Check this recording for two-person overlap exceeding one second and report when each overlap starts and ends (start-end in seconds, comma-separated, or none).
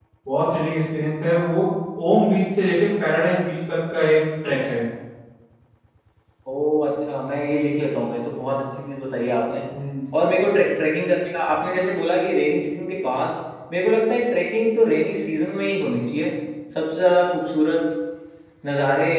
none